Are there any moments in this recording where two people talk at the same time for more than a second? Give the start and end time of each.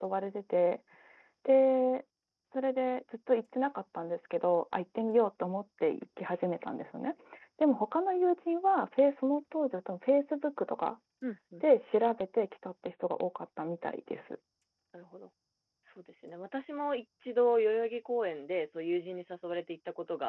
none

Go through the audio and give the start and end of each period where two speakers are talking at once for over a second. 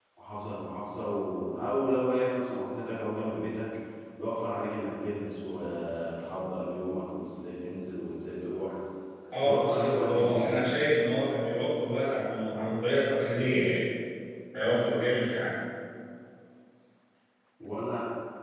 9.4-10.7

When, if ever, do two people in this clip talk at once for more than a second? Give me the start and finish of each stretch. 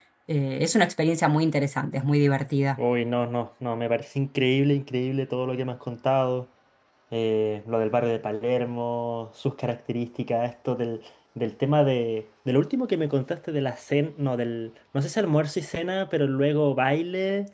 none

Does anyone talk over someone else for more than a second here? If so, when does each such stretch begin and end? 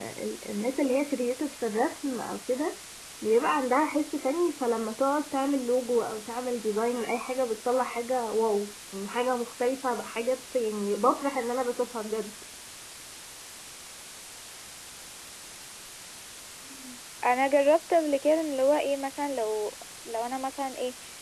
none

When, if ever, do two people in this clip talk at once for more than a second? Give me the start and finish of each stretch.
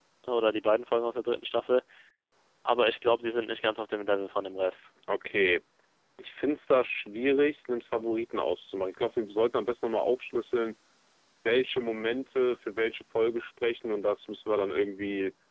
none

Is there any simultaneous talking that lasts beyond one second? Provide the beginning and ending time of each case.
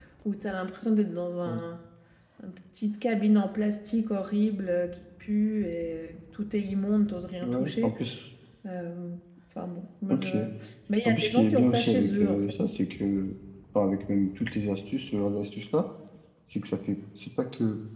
11.1-12.5

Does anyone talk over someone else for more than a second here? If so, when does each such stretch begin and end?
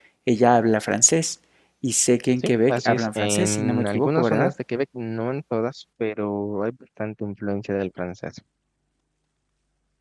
2.4-4.5

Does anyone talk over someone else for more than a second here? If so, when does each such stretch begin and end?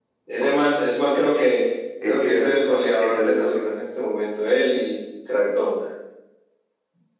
2.0-3.7

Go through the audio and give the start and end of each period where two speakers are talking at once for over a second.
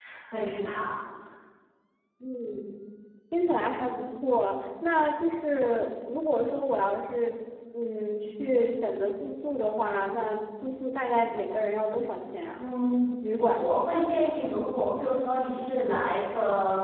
none

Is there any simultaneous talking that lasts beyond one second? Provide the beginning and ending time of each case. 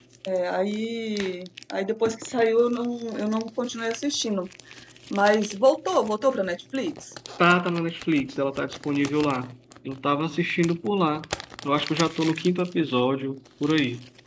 none

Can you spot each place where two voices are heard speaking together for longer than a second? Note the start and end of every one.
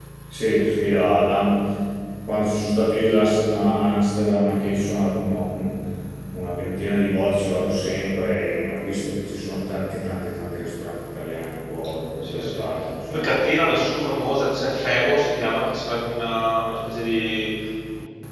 none

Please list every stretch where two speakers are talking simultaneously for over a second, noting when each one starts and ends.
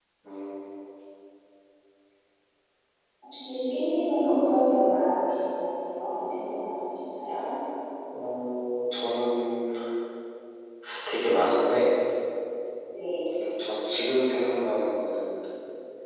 none

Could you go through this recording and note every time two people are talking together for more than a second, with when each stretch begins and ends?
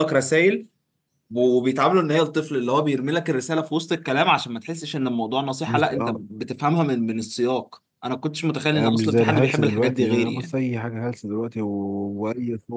8.7-10.5

